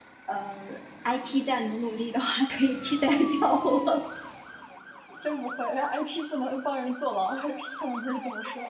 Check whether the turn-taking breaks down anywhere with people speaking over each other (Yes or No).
No